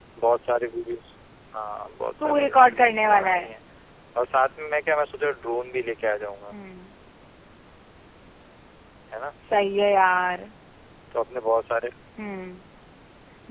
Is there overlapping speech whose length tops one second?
Yes, from 2.2 s

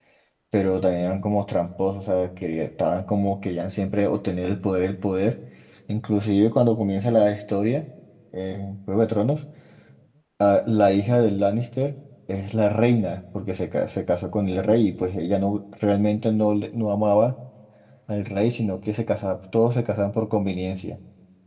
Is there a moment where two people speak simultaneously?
No

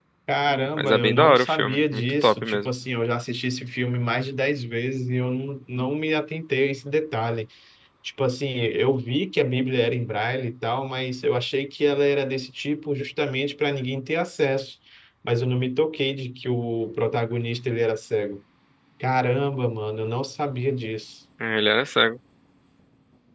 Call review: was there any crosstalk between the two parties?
Yes, from 0.7 s

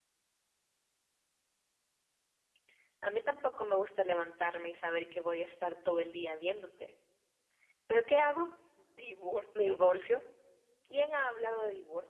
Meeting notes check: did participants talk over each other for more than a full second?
No

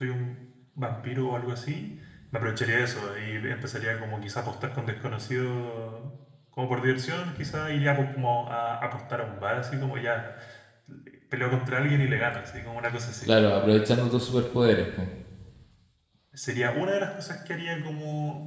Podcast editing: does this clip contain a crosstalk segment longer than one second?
No

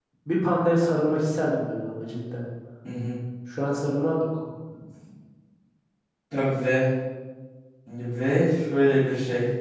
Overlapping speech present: No

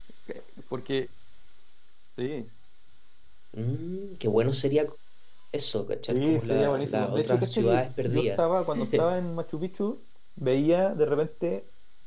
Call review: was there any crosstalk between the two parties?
Yes, from 6.1 s

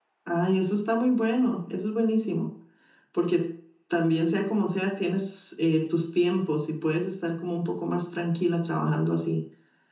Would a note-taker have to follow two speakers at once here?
No

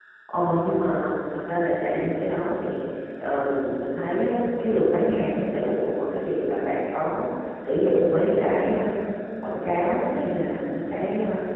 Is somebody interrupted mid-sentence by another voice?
No

